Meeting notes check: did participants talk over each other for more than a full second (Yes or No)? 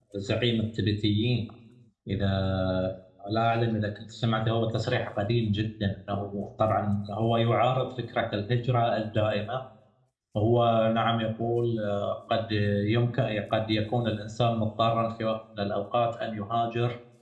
No